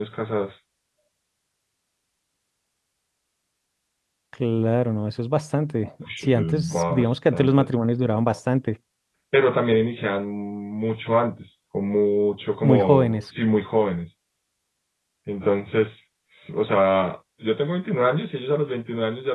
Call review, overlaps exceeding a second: present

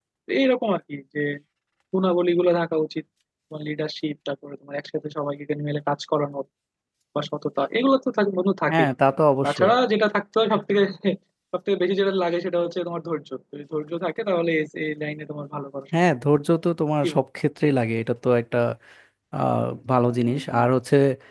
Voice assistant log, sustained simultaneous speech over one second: none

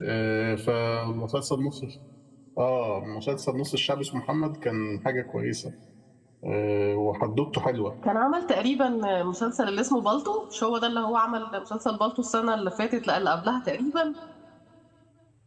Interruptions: none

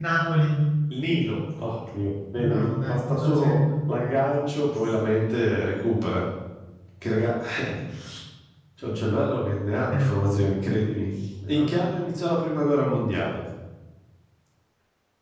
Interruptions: present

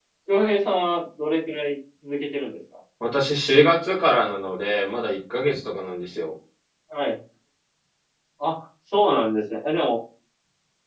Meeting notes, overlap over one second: none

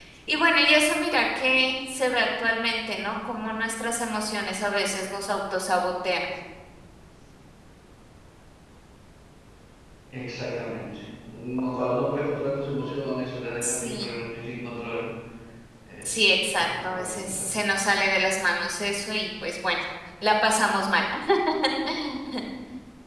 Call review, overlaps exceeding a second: present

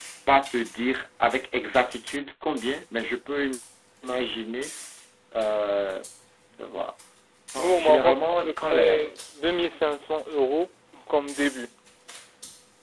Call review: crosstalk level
present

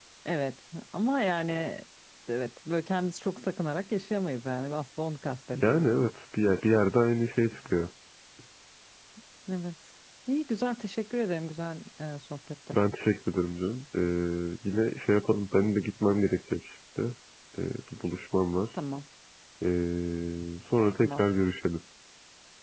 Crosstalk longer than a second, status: none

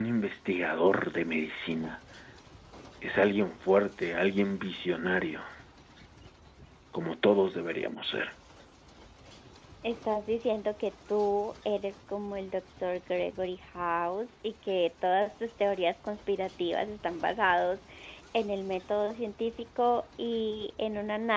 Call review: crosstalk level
none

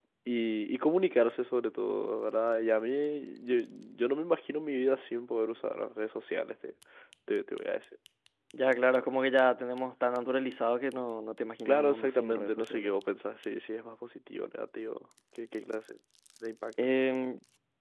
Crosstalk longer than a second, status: present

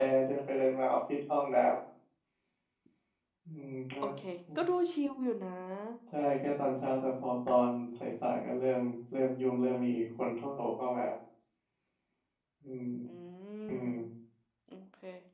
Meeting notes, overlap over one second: none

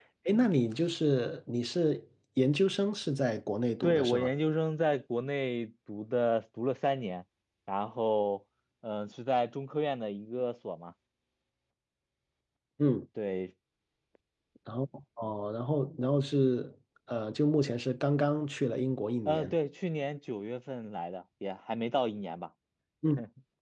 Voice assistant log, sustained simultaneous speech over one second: none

